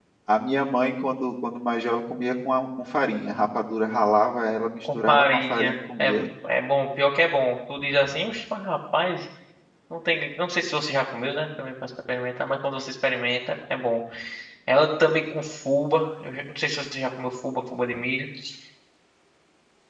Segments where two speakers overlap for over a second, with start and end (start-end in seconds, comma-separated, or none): 4.8-6.1